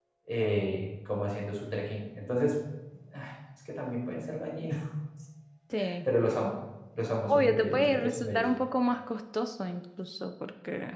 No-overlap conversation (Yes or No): No